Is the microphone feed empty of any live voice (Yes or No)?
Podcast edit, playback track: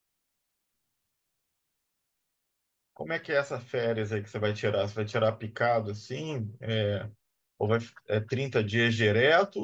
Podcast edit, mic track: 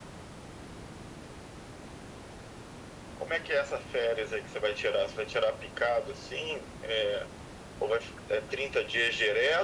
Yes